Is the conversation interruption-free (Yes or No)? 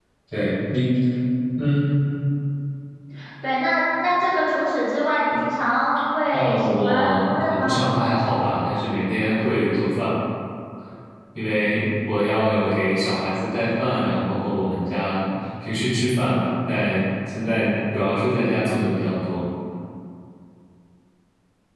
No